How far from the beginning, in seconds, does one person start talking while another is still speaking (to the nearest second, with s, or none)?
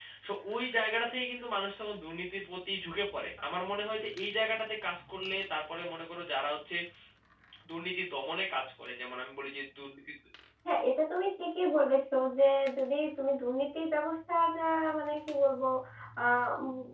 none